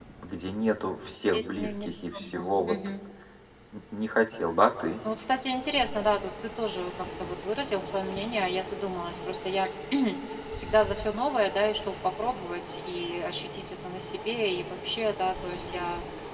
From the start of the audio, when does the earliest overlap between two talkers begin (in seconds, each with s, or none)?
1.3 s